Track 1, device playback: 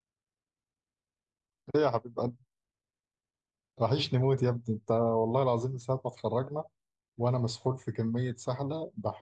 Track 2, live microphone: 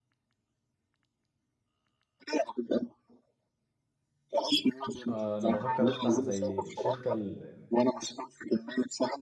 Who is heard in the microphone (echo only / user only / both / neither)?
both